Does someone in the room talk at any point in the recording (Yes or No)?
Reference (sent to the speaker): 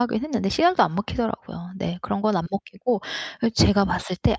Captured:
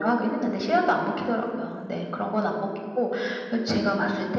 No